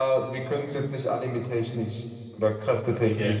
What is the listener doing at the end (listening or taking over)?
listening